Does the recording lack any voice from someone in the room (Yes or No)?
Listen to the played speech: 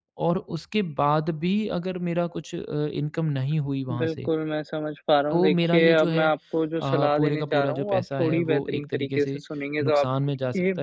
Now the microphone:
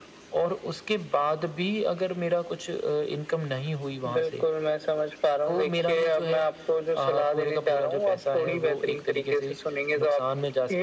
Yes